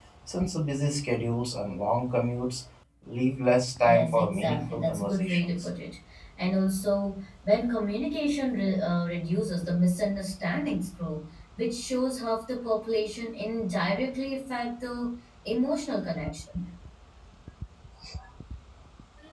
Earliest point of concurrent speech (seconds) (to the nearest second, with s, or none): 4 s